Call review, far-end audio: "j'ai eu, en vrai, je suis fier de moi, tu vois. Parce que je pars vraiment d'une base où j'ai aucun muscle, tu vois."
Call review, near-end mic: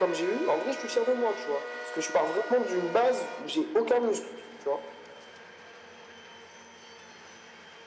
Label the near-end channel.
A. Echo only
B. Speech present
A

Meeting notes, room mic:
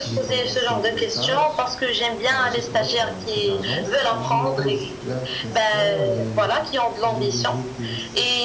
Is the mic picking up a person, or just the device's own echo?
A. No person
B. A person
B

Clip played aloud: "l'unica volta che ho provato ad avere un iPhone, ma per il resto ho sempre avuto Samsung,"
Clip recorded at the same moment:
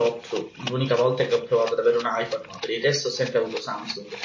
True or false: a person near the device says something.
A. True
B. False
B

